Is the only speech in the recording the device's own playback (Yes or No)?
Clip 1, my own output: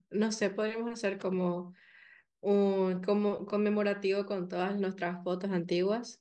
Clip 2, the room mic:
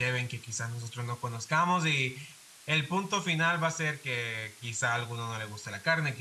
No